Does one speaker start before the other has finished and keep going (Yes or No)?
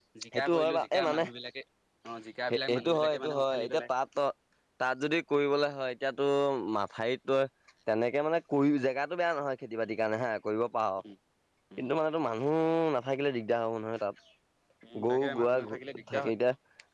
Yes